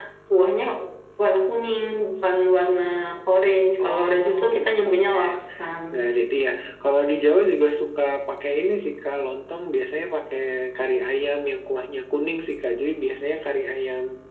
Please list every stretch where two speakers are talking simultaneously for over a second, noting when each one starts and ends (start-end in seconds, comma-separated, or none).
3.8-5.2